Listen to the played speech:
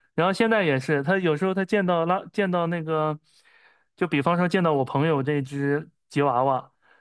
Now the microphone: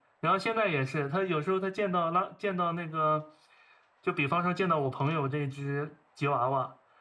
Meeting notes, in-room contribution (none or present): none